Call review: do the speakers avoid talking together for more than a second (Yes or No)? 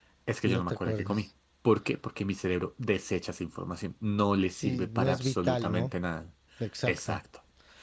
No